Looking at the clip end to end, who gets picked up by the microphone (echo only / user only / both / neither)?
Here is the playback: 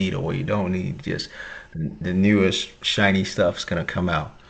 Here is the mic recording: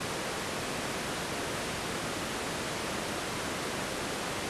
neither